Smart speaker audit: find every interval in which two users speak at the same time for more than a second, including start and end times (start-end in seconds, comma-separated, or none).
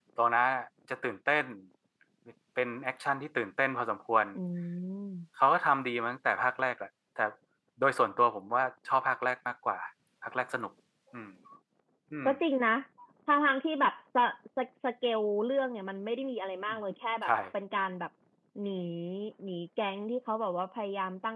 none